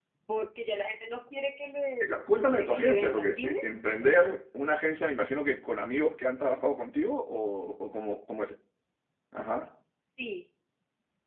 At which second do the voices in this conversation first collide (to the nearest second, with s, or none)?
2 s